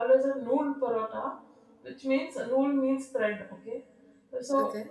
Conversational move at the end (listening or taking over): listening